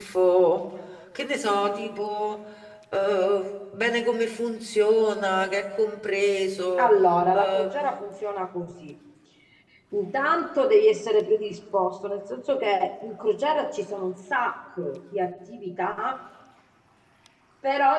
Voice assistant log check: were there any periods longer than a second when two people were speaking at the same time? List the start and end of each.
none

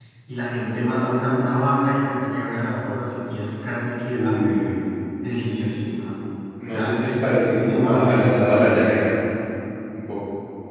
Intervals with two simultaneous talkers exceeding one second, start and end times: 6.7-8.8

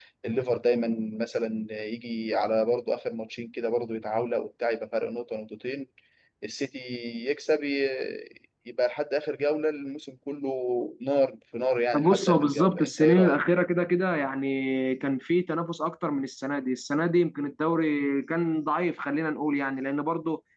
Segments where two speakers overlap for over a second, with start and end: 11.9-13.4

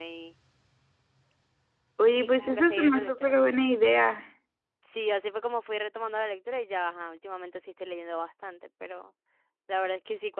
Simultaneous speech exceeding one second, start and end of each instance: 2.2-3.4

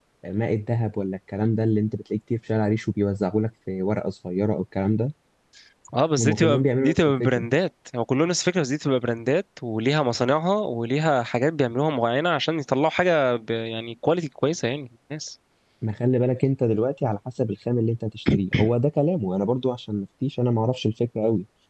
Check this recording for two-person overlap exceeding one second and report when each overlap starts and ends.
6.2-7.4

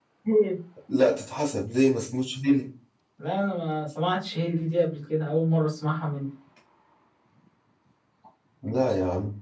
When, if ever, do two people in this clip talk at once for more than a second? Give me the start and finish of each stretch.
none

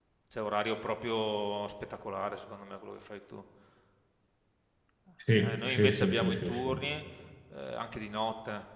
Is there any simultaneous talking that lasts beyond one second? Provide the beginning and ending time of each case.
5.4-6.8

